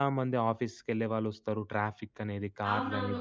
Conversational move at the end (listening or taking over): taking over